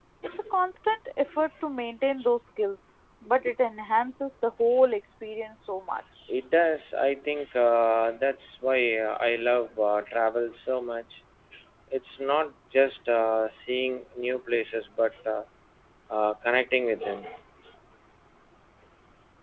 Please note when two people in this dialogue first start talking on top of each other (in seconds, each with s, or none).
none